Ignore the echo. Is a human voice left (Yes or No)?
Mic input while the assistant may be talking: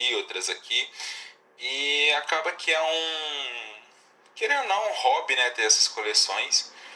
No